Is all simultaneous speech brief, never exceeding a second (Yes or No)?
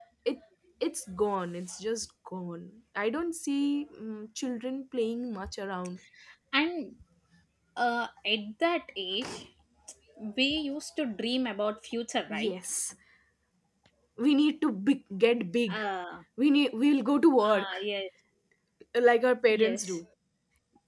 Yes